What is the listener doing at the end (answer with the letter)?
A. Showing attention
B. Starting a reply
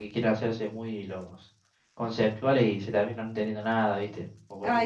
B